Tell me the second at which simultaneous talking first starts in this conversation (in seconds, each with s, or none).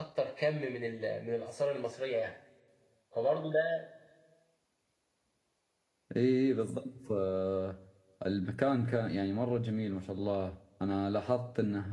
none